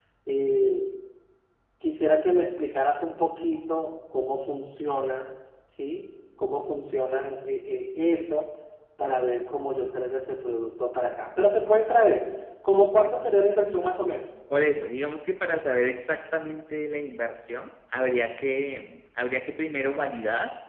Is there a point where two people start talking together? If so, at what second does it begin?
none

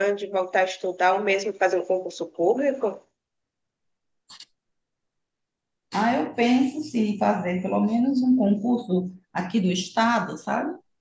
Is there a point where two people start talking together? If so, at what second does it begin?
none

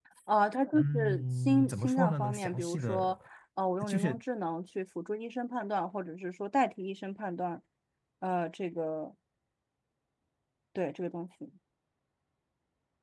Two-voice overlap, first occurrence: 0.7 s

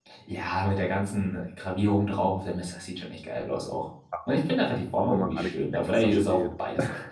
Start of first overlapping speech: 5.0 s

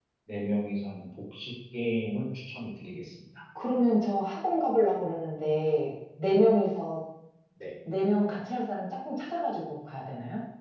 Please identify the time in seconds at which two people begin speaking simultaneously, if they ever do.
none

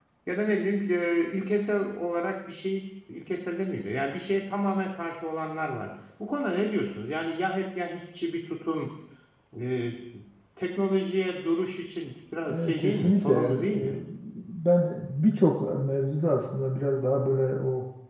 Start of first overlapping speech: 12.5 s

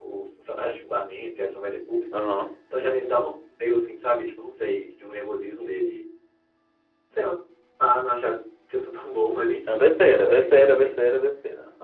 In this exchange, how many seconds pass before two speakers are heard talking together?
9.7 s

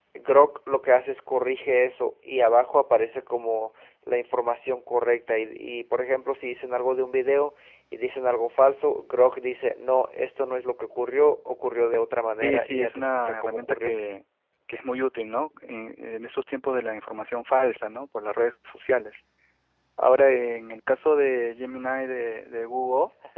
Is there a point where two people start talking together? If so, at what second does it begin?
12.4 s

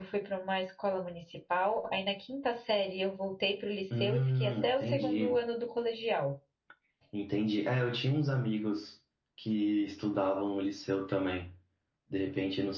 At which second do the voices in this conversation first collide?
3.9 s

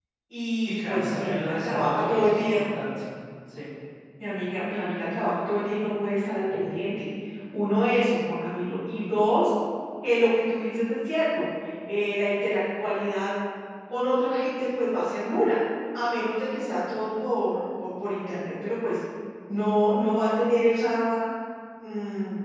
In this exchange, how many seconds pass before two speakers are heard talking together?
0.8 s

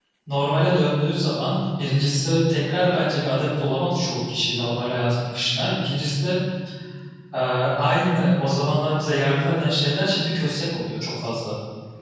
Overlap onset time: none

